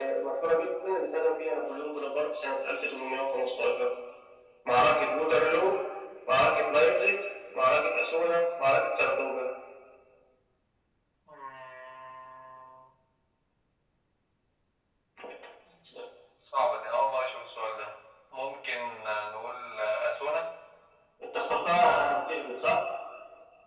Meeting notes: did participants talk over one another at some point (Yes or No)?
No